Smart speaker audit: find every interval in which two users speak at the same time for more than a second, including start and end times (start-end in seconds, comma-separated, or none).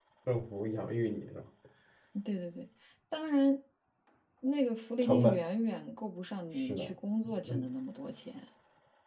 none